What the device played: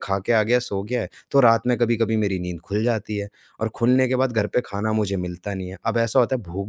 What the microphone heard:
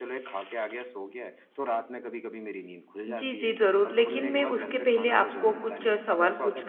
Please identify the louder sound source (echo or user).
user